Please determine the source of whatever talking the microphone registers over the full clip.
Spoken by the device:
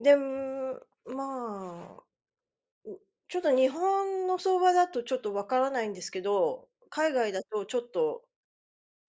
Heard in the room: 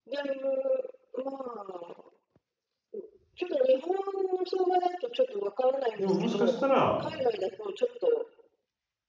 both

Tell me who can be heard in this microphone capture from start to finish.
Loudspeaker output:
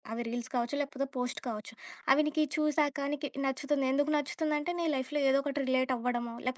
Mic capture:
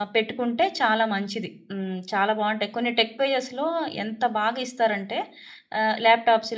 user only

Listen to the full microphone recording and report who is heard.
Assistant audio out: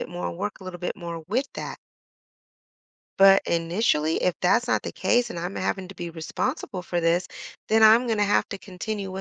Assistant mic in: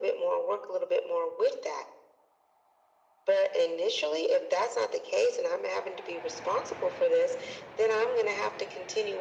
echo only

